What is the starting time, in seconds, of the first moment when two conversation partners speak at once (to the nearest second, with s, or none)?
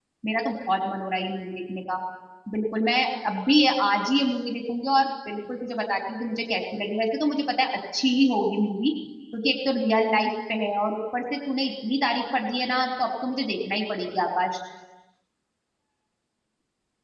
none